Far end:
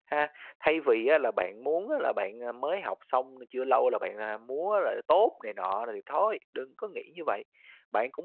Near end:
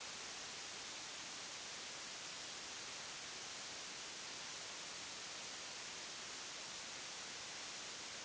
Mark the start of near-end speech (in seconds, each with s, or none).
none